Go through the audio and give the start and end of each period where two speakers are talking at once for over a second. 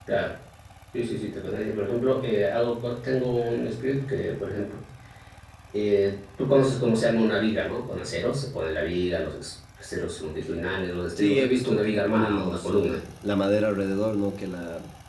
11.2-13.0

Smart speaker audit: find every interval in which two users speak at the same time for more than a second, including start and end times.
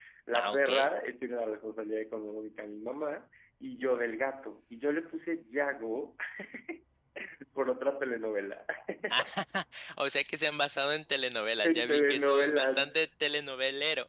11.7-12.9

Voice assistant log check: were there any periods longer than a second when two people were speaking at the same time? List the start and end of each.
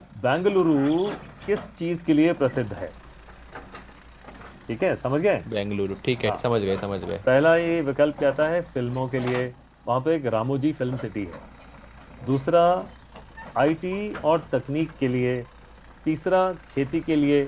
none

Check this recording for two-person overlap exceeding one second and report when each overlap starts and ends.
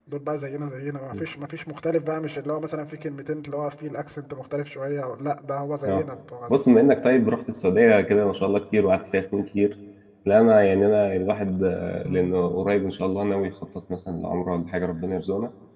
none

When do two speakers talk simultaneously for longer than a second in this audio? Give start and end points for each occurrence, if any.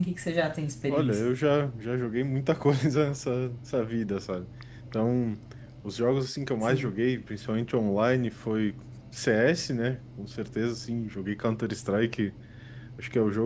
none

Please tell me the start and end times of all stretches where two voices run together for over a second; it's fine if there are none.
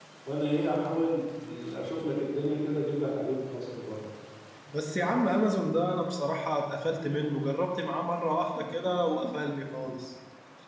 none

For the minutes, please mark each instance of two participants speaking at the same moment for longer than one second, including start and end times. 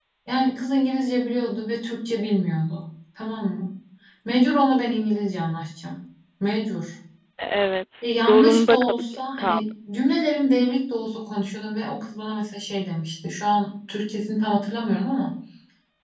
8.2-9.6

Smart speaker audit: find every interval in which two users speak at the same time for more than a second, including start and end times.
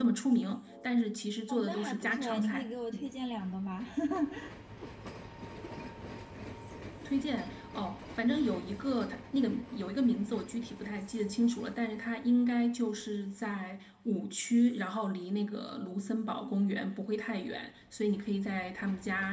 1.5-3.1

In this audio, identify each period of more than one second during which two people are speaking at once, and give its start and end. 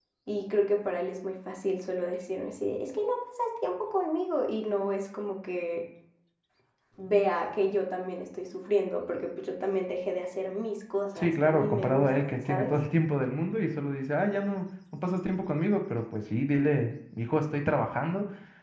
11.2-12.7

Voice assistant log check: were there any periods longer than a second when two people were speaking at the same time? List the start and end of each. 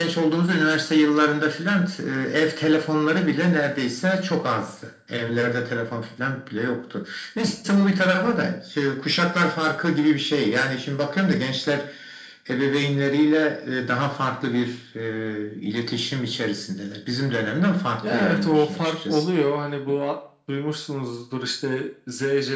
18.0-19.2

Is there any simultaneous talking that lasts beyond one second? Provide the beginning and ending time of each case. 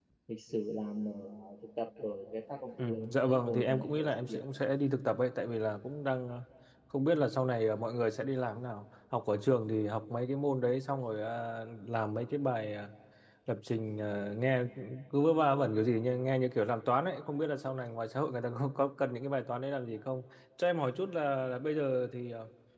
2.8-4.4

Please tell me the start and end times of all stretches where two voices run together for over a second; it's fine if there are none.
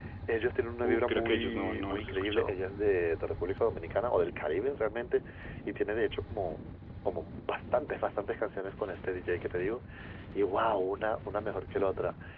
0.8-2.5

